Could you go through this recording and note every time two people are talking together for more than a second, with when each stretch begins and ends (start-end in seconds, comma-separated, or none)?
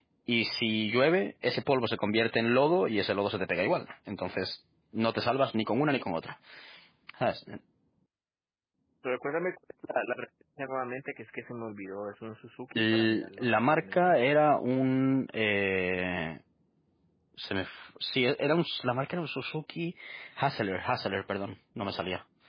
12.8-14.2